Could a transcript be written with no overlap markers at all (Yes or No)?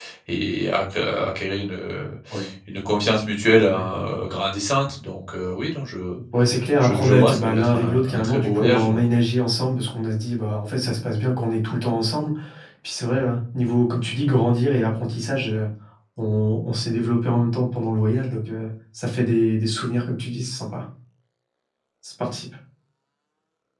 No